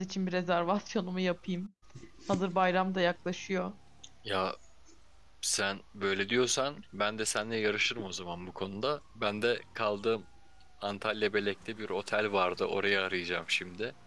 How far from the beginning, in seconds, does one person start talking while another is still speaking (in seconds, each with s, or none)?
none